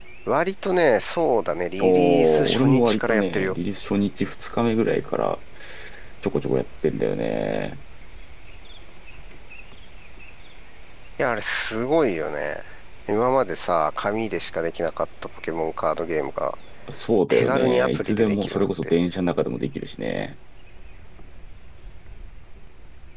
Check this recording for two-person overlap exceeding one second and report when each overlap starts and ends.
1.8-3.6, 17.3-18.9

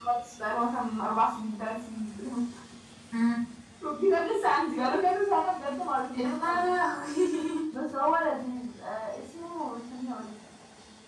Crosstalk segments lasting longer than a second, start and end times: none

